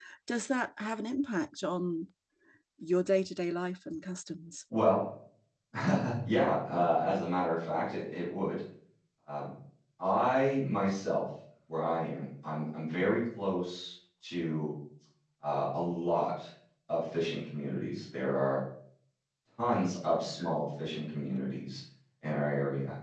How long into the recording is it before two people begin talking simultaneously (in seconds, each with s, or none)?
none